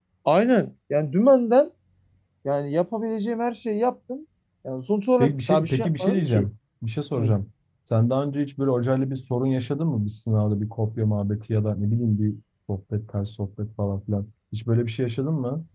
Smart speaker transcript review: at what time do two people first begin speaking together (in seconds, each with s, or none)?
5.2 s